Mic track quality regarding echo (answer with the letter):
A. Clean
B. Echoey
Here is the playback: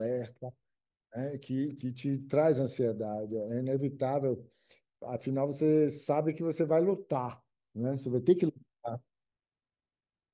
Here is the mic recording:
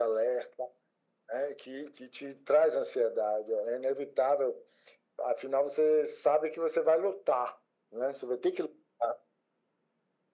B